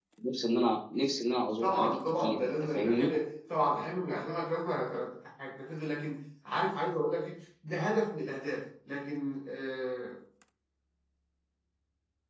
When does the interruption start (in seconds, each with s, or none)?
1.6 s